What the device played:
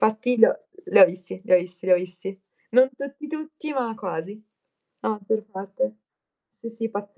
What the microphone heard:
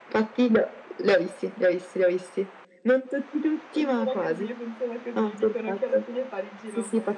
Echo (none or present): present